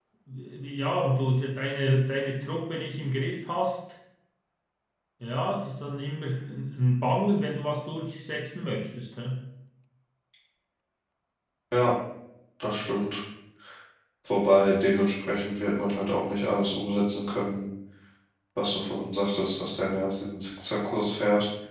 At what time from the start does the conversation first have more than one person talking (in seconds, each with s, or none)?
none